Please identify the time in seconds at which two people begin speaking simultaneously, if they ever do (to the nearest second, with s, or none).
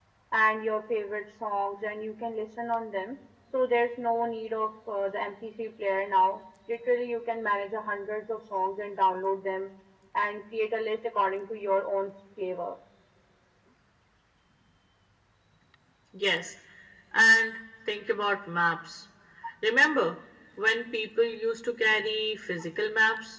none